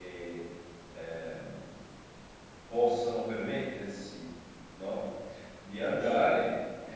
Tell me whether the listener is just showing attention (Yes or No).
Yes